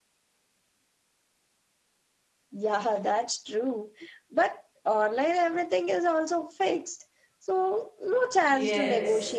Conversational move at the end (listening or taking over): taking over